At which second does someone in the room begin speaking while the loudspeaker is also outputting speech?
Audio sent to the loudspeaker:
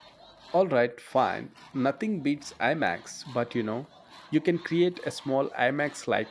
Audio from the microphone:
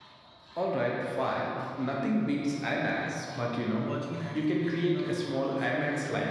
3.8 s

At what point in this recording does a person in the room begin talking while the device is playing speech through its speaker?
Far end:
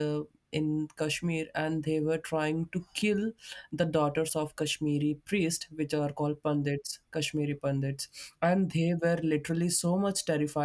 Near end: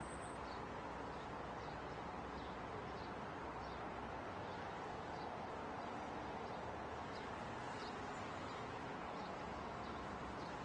none

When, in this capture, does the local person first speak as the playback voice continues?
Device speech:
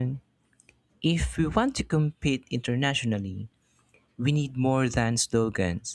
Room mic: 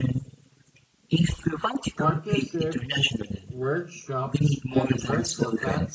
1.9 s

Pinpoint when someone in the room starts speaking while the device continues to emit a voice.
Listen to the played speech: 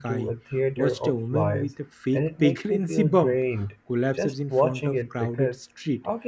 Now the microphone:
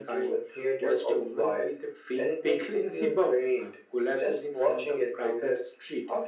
none

